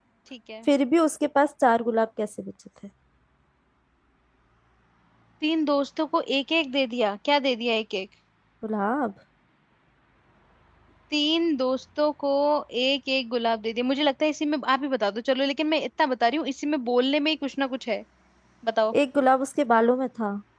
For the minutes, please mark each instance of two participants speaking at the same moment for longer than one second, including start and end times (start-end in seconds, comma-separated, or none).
none